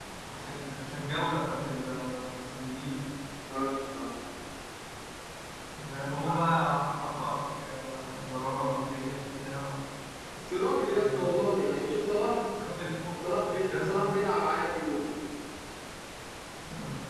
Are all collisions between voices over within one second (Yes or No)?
Yes